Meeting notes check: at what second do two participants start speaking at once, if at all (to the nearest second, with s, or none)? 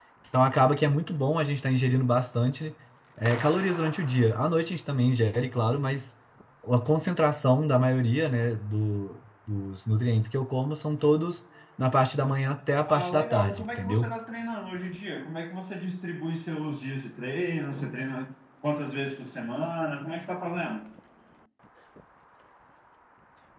13 s